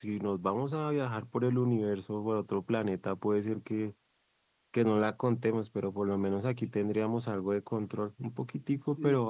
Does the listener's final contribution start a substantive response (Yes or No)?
Yes